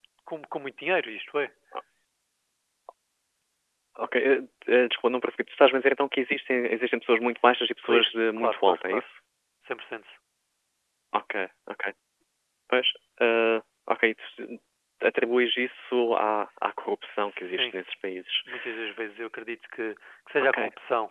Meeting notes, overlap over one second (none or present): present